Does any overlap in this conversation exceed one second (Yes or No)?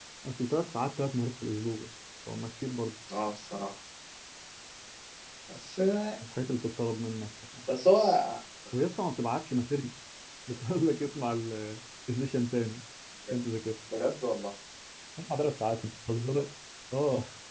No